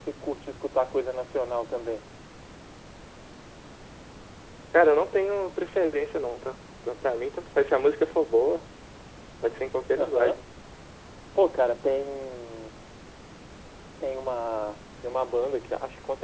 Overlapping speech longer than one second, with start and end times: none

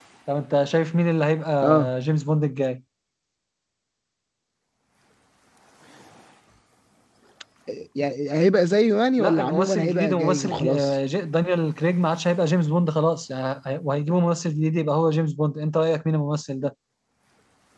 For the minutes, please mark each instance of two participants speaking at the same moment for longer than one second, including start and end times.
9.2-10.9

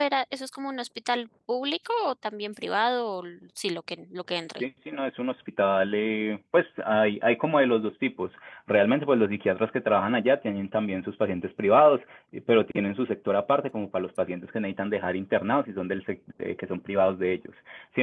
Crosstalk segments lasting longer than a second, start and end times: none

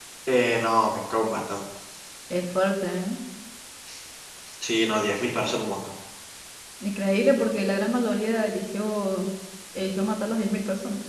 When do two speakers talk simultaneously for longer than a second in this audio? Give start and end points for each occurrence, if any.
none

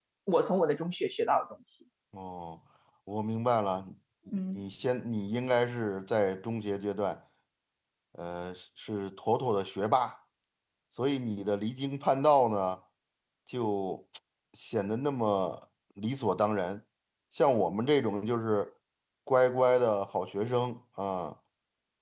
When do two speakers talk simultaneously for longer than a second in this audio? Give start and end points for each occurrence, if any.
none

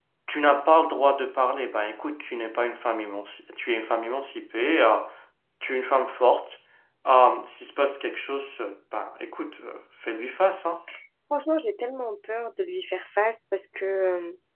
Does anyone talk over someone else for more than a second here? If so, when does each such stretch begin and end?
none

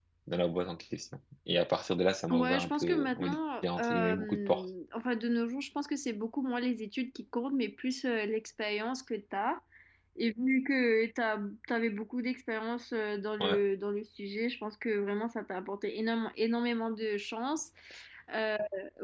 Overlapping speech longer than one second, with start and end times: 2.3-4.6

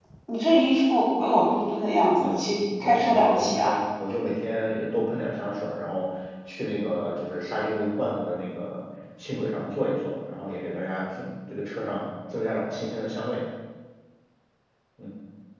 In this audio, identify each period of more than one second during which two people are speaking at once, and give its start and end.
2.2-3.8

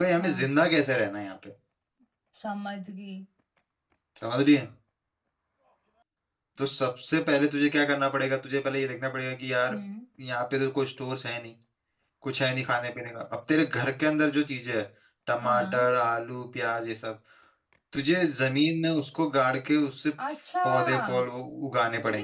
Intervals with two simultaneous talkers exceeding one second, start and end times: none

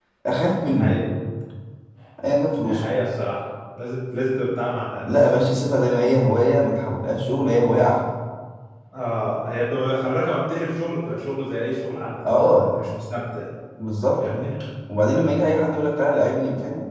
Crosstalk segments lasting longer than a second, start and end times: none

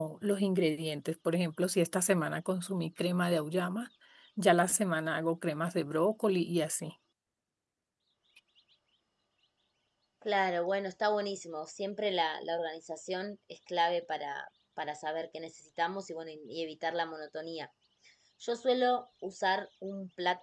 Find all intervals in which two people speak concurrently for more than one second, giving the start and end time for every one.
none

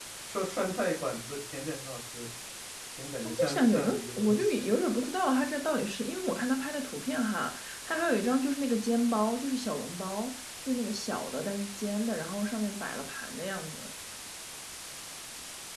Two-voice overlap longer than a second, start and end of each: 3.2-4.6

